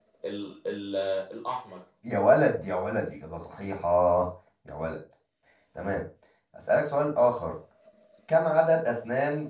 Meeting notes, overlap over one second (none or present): none